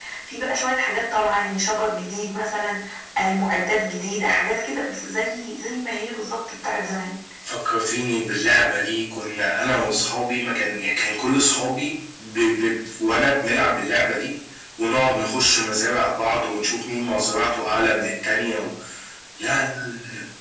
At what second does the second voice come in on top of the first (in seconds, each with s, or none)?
none